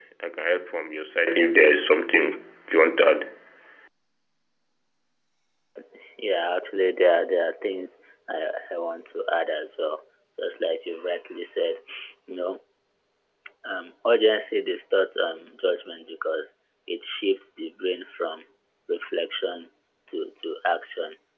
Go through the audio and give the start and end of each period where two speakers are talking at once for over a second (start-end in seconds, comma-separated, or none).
none